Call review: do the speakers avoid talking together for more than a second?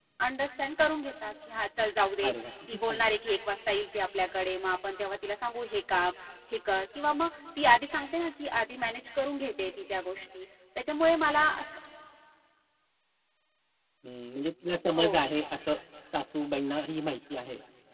Yes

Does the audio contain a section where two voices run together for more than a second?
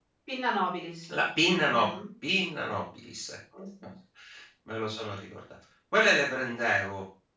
No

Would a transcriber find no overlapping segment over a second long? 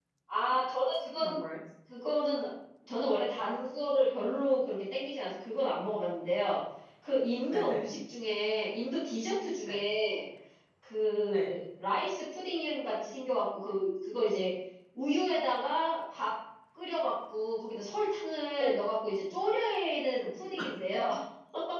Yes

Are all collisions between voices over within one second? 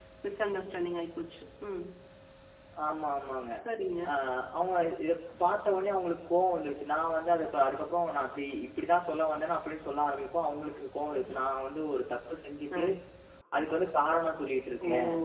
Yes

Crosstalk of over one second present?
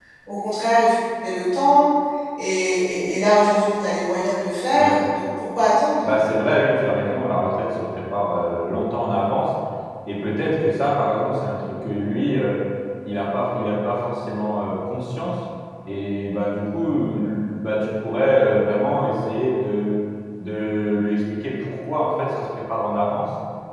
No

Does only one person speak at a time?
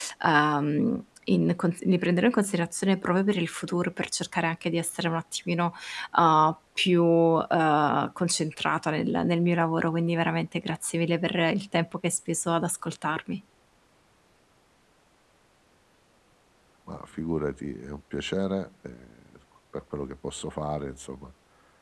Yes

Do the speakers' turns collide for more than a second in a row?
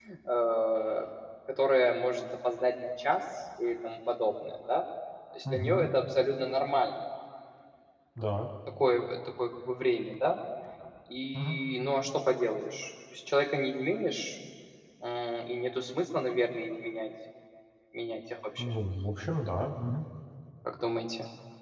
No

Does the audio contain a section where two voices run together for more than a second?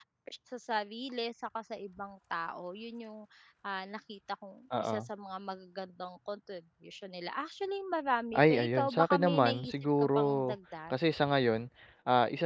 Yes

